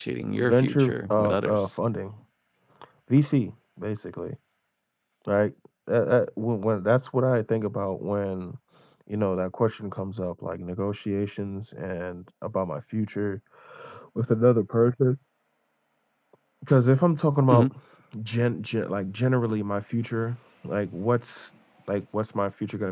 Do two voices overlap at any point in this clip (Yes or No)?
Yes